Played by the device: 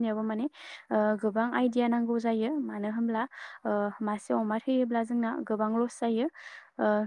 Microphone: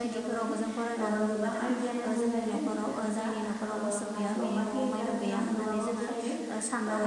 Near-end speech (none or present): present